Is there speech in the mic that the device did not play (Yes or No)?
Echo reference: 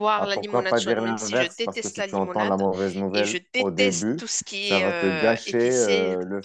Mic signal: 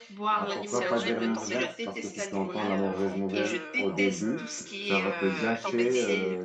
Yes